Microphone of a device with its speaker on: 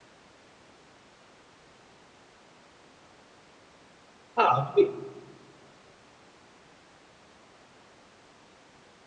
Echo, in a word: none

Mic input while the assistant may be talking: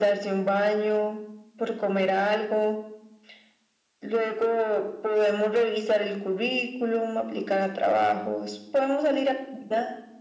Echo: present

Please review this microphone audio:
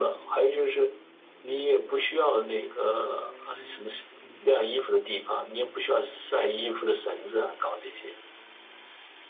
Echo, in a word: present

